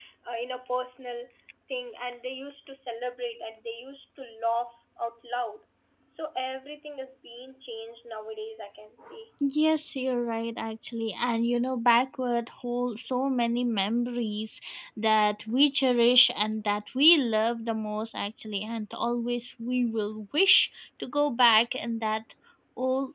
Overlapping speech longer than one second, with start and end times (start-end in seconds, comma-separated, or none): none